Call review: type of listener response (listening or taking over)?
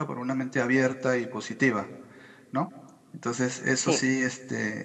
listening